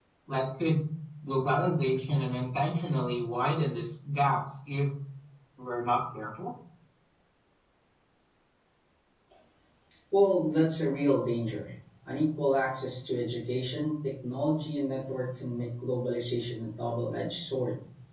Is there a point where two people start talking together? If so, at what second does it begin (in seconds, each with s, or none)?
none